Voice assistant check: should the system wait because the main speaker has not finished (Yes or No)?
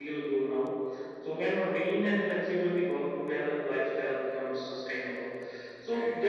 Yes